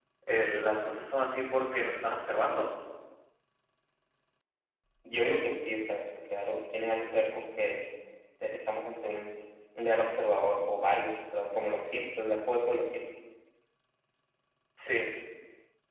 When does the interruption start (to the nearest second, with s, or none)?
none